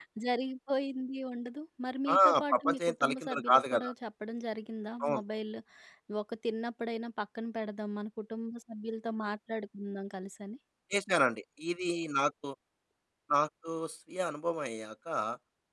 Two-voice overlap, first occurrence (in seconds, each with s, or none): 2.1 s